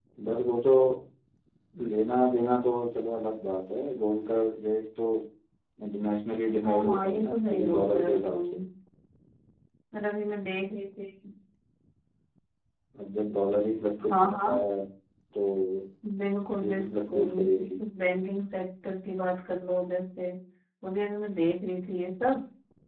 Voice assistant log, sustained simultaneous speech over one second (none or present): present